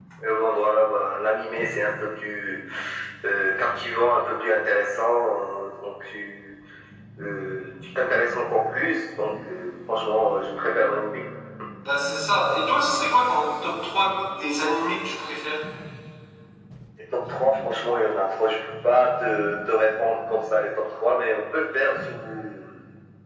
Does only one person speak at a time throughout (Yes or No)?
Yes